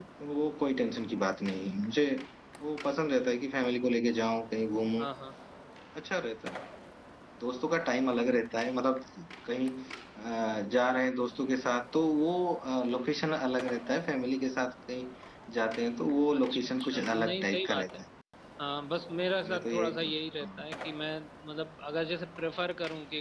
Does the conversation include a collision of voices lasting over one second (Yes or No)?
Yes